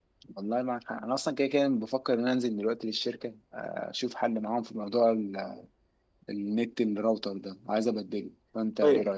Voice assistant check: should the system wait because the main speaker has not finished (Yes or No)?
No